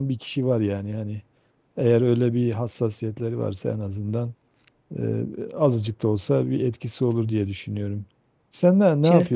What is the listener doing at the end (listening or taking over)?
listening